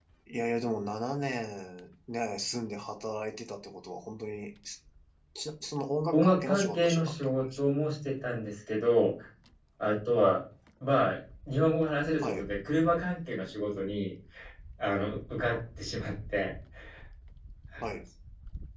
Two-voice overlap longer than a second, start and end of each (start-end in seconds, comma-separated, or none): 6.1-7.8